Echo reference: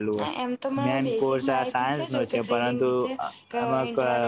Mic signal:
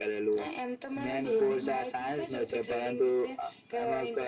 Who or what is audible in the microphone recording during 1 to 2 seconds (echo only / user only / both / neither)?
both